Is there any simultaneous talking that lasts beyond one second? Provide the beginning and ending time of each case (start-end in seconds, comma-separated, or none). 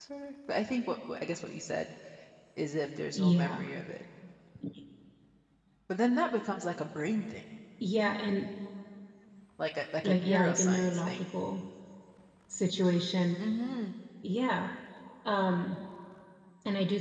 10.0-11.2